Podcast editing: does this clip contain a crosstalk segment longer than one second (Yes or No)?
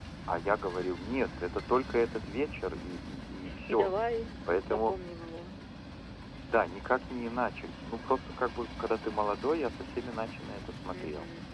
No